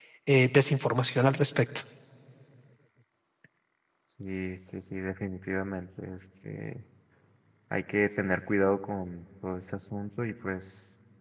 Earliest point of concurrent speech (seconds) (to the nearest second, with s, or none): none